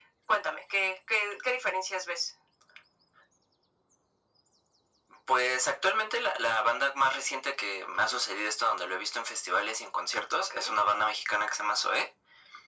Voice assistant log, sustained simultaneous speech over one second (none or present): none